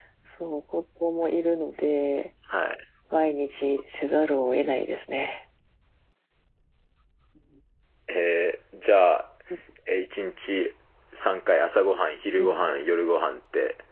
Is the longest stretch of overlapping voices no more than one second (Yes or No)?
Yes